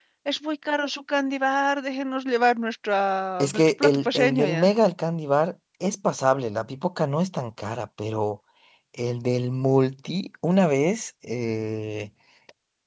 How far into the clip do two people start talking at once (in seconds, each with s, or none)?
3.4 s